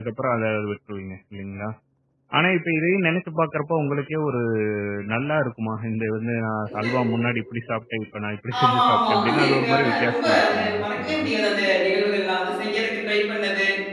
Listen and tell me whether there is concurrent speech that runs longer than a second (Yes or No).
Yes